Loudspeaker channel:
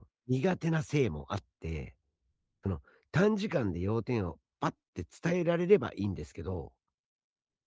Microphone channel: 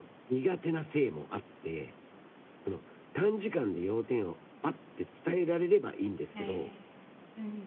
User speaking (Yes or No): Yes